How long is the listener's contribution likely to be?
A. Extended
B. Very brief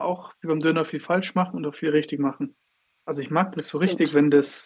B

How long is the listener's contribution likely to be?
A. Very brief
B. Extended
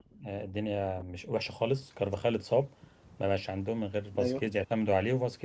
A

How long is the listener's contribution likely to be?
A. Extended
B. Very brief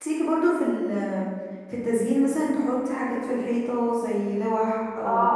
A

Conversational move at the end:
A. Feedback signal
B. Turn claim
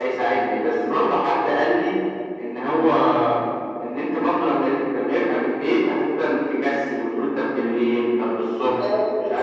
B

